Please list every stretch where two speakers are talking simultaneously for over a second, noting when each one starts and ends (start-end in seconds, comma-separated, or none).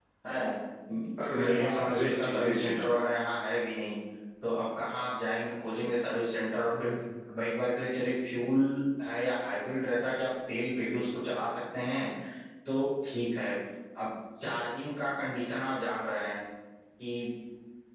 1.4-2.9